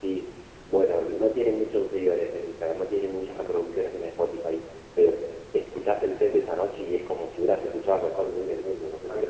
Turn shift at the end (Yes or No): Yes